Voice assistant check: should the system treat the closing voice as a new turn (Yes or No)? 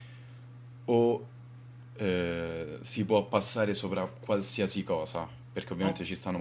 No